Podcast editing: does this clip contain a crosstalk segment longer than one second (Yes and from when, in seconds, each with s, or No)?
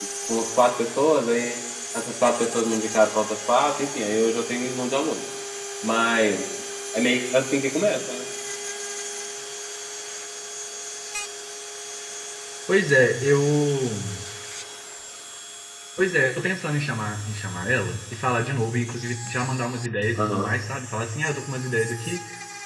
No